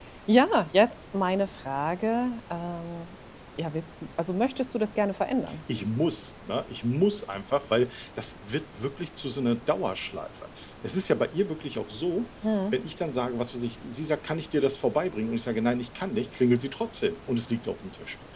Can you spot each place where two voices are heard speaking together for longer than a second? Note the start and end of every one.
none

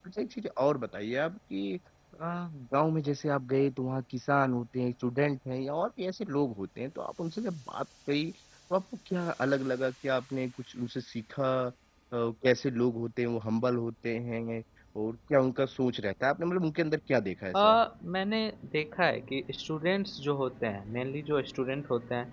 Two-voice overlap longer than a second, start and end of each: none

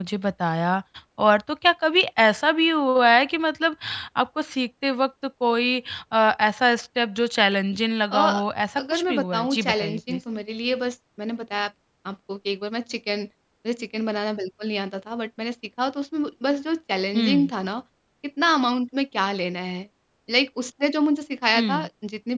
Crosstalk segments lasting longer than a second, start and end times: 8.8-10.2

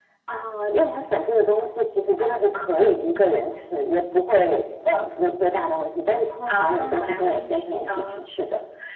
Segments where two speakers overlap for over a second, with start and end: 6.5-8.3

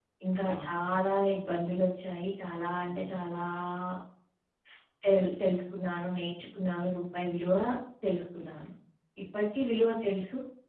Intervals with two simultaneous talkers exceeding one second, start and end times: 0.5-1.9

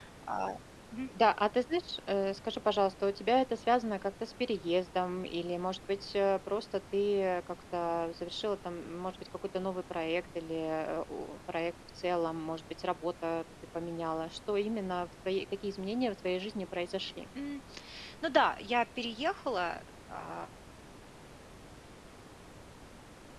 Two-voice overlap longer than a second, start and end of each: none

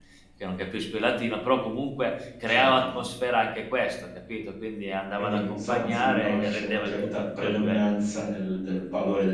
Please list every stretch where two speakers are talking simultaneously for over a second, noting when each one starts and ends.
5.1-7.8

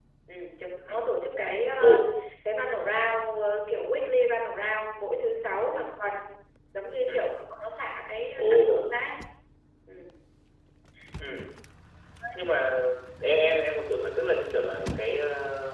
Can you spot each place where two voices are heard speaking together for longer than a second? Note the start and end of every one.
none

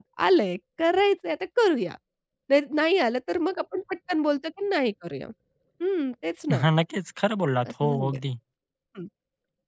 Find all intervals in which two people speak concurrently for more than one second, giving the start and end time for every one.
none

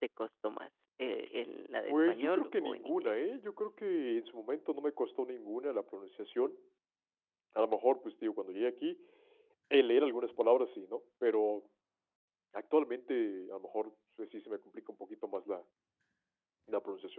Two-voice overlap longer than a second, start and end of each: 1.9-3.1

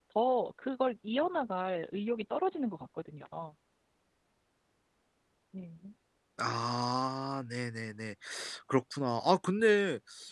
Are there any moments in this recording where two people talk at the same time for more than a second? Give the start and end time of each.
none

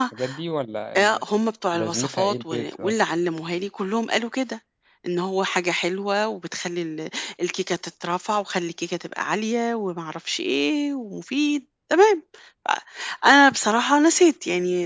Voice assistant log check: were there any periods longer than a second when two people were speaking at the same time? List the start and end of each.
1.7-2.9

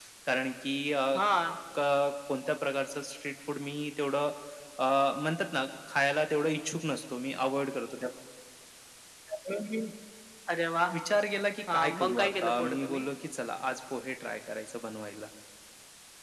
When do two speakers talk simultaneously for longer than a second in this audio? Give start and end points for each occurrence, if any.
11.7-13.0

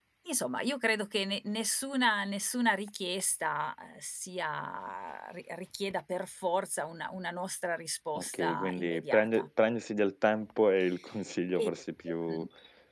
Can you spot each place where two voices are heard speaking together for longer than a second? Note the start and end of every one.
8.2-9.5

